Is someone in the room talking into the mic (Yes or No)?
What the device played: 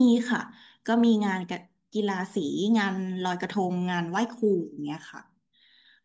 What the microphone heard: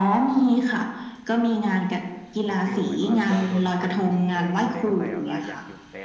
Yes